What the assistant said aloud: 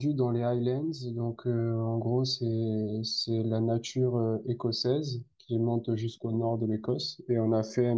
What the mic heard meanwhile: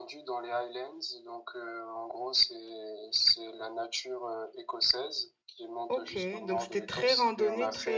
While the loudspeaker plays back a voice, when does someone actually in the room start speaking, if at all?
5.9 s

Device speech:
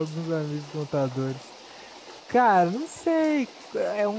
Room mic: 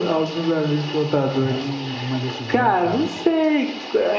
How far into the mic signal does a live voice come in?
1.4 s

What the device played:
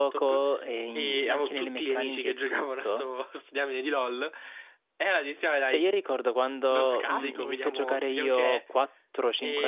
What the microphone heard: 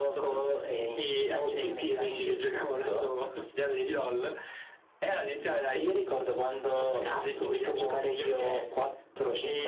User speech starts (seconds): none

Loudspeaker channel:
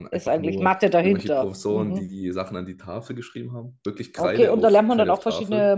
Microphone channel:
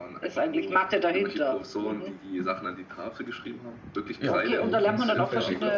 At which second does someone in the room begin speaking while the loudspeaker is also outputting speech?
4.2 s

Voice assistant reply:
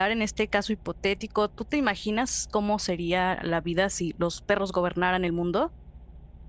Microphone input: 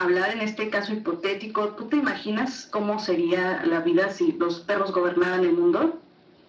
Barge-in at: none

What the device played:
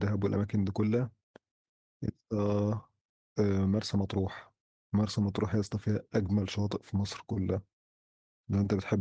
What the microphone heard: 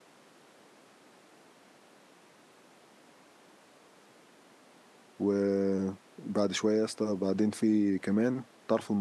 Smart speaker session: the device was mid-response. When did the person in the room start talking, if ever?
5.2 s

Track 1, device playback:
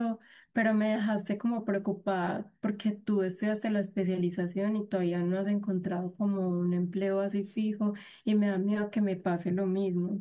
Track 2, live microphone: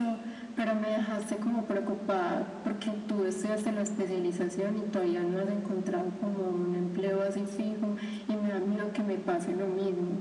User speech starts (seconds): none

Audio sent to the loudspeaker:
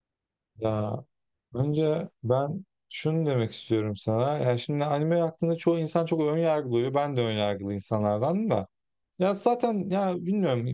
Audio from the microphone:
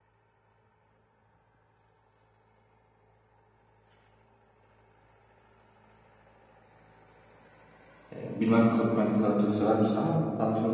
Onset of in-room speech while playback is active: 8.2 s

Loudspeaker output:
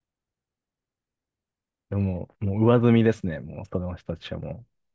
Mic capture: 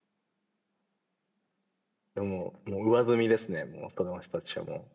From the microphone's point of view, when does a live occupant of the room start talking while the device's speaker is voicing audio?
none

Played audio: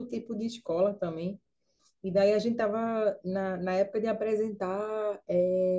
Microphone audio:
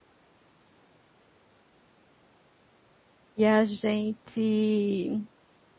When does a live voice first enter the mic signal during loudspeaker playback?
3.4 s

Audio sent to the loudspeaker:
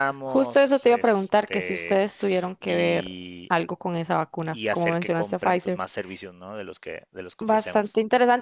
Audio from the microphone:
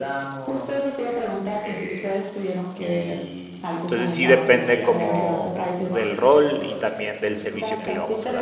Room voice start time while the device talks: 3.8 s

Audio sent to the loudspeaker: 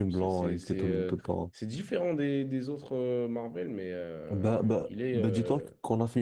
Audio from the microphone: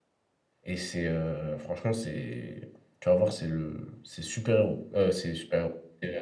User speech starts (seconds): 0.6 s

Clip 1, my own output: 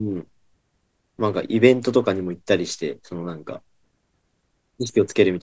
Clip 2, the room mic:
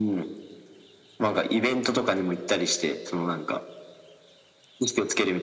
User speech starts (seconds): none

